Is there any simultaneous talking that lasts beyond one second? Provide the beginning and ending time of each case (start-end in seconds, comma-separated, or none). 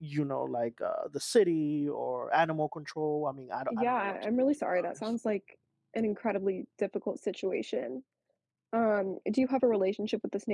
3.7-5.1